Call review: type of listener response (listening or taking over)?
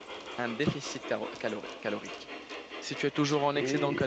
listening